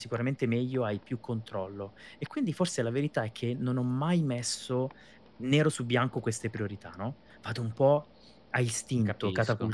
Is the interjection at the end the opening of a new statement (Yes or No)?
No